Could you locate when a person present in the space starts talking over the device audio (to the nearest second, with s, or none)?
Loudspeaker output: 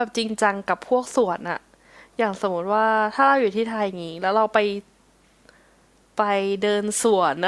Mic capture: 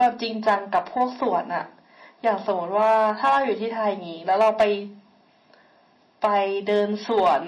none